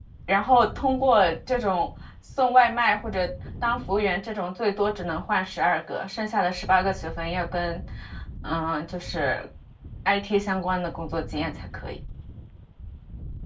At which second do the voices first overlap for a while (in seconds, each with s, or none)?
none